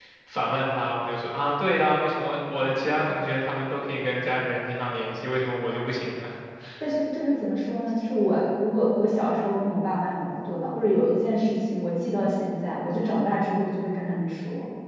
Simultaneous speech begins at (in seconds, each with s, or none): none